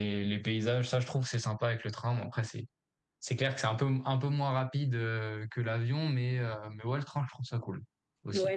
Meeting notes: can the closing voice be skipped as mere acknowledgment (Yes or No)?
No